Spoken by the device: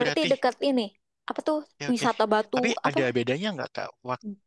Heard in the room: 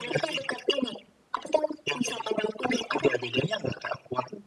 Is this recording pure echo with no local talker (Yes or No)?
Yes